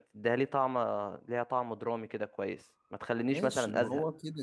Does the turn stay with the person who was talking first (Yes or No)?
No